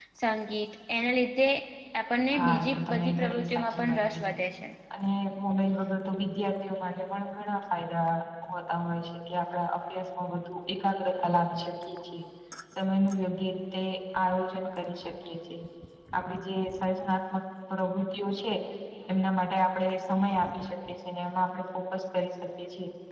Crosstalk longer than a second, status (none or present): present